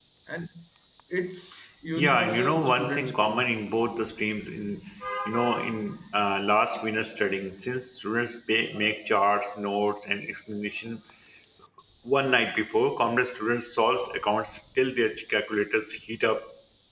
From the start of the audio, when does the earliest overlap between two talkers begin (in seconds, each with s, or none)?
2.0 s